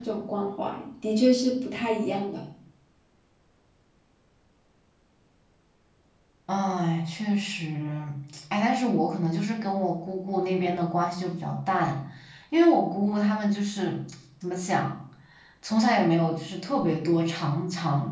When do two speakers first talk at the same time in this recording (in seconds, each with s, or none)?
none